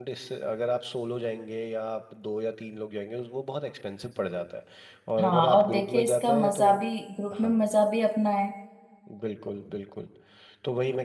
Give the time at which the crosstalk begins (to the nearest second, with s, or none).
5 s